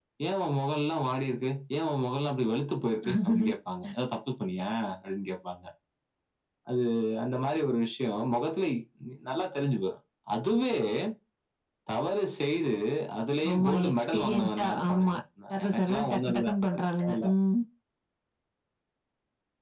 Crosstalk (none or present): present